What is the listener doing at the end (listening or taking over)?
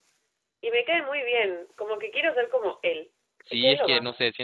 taking over